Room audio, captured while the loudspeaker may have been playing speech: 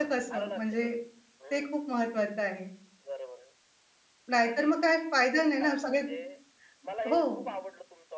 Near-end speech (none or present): present